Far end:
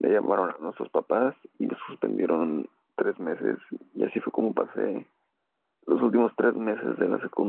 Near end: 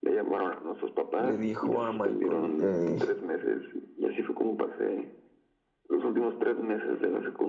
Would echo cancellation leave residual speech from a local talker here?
Yes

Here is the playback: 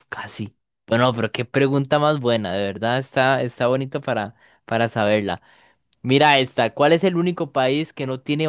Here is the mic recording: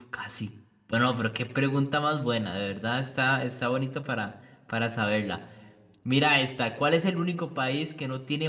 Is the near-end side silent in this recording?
Yes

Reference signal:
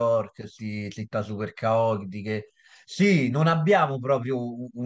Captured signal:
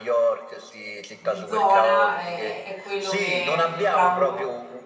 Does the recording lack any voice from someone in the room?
No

